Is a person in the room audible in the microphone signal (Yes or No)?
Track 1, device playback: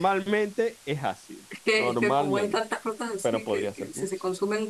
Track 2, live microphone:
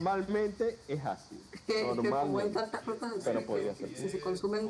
Yes